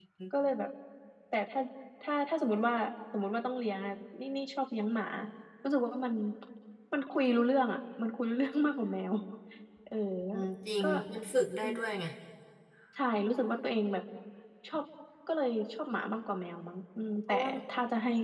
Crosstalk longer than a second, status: none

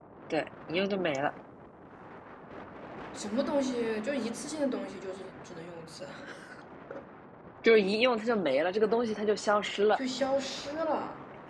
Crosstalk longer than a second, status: none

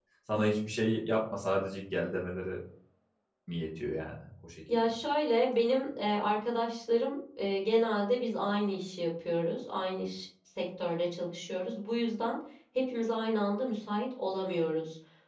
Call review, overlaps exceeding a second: none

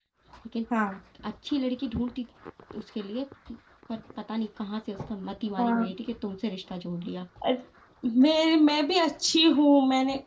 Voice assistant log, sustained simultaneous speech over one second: none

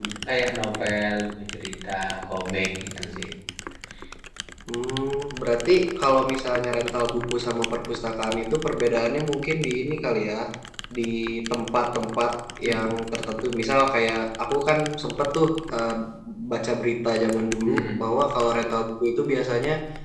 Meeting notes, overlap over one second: none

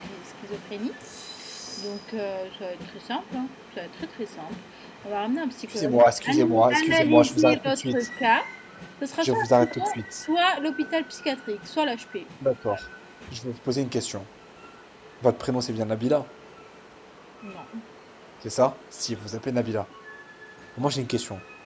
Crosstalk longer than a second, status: present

